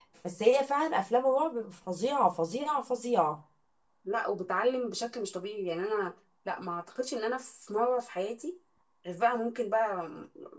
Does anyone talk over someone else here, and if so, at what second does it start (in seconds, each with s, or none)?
none